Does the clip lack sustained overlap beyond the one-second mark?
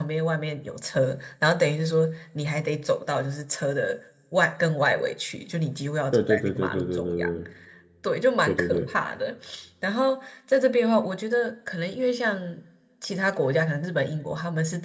No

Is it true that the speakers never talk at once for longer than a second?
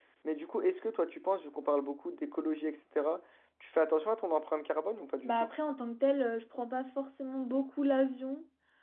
Yes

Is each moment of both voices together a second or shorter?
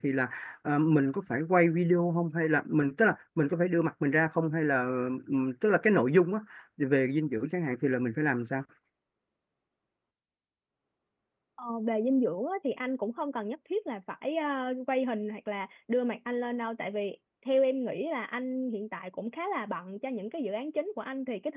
Yes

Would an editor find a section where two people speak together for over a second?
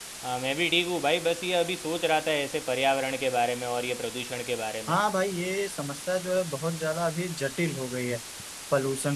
No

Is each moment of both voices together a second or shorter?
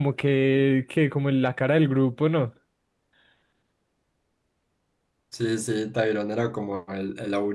Yes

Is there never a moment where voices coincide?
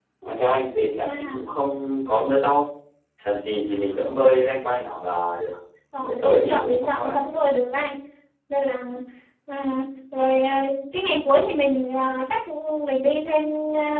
No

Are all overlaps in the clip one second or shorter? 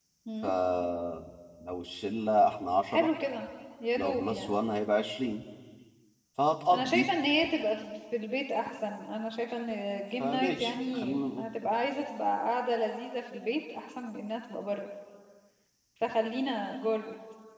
No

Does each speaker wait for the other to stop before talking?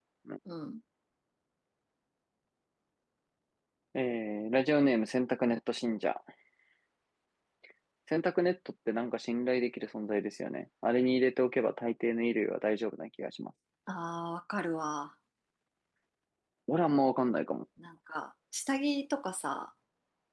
Yes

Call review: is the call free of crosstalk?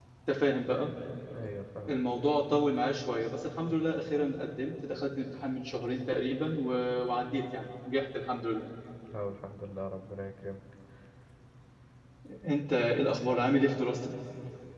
Yes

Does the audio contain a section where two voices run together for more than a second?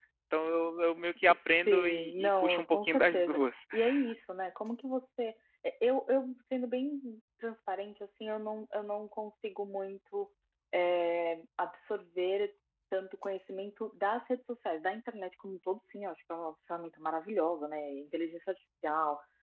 Yes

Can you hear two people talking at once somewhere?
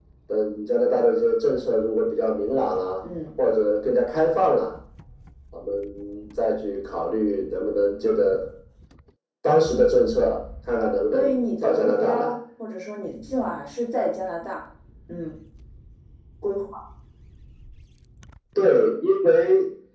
Yes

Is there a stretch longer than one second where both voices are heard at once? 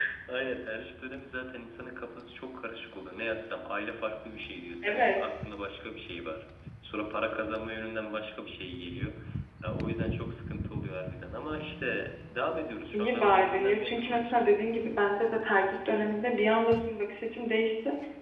Yes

